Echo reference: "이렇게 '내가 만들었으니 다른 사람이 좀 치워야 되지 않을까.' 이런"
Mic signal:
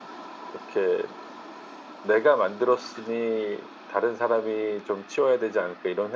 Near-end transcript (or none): none